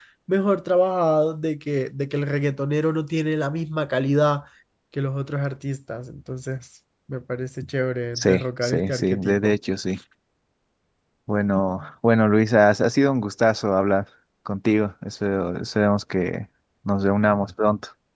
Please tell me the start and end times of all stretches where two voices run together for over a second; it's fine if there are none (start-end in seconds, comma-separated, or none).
8.2-9.6